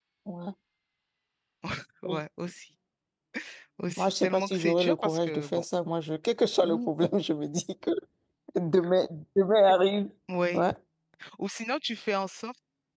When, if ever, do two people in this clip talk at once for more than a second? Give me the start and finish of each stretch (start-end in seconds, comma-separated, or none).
4.0-5.6